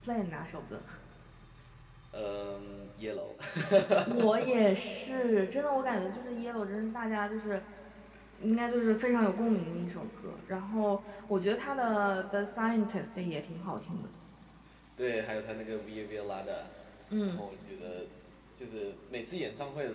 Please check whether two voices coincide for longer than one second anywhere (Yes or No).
No